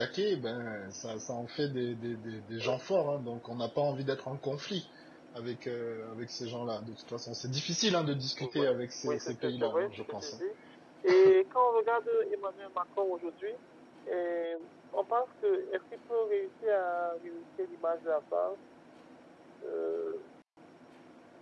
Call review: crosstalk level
present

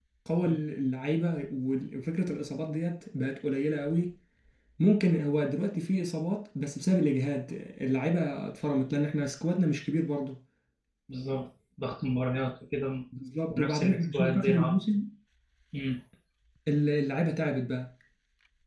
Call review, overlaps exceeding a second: present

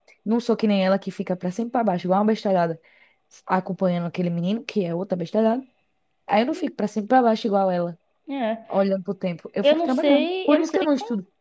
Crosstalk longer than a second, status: present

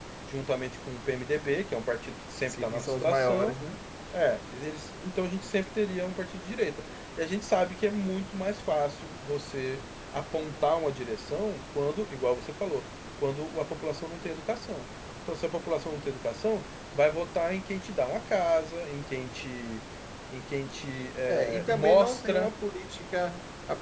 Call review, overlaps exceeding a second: present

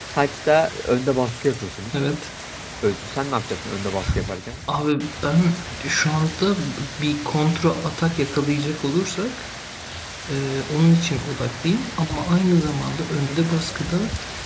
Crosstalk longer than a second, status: none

